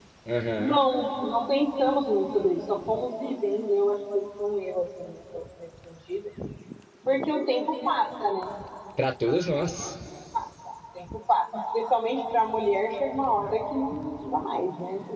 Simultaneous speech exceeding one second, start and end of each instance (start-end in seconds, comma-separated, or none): none